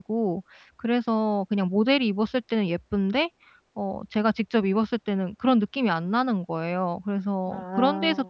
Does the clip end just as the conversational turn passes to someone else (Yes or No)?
No